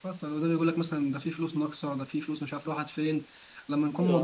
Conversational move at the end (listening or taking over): listening